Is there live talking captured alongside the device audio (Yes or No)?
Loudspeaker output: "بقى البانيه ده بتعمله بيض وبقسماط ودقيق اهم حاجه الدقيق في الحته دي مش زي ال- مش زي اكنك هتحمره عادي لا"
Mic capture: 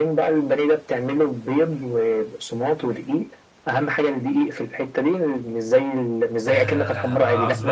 Yes